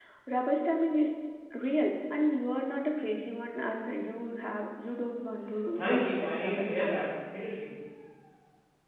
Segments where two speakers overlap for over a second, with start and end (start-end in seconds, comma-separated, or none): 5.8-7.1